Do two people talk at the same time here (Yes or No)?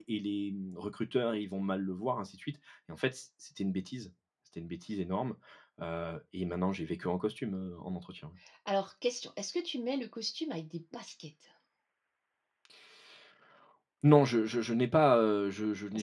No